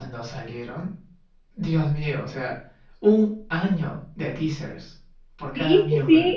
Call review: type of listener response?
taking over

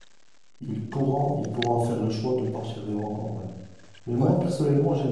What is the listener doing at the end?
listening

